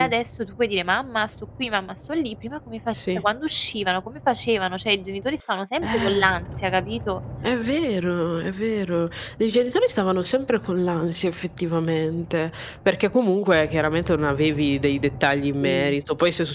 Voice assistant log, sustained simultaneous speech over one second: none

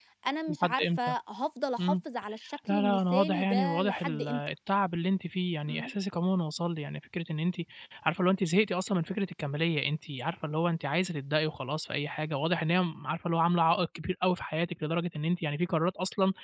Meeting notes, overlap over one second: present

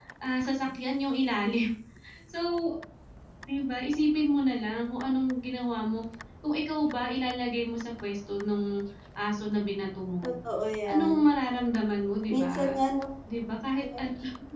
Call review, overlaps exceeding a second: none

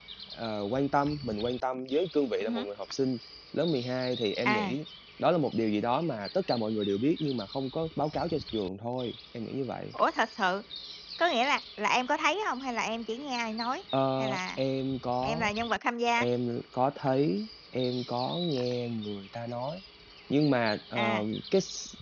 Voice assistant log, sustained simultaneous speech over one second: none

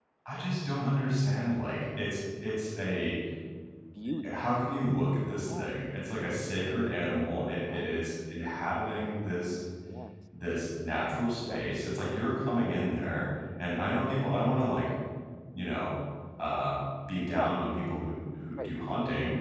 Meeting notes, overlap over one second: none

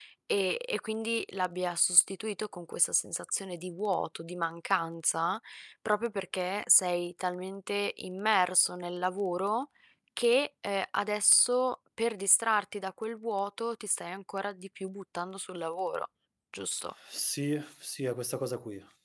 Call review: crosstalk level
none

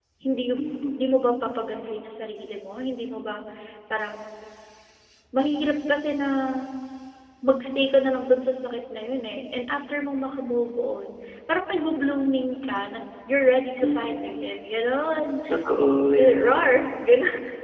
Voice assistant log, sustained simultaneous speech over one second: none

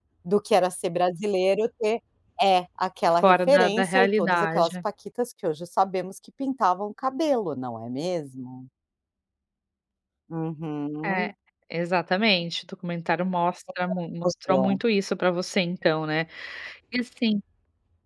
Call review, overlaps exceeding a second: present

